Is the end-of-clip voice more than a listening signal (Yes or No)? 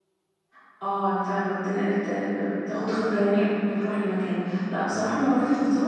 No